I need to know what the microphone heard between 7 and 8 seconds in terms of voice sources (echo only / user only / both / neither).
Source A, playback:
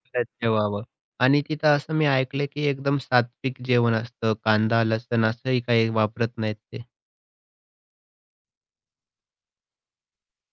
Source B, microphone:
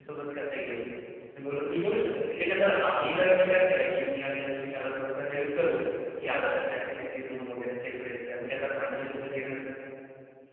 user only